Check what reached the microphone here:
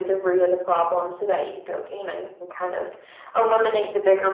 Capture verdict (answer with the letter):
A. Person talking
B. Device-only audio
B